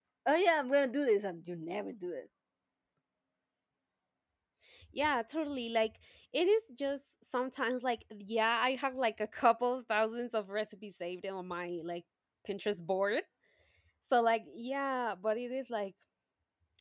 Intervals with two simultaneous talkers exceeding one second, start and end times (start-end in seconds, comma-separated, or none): none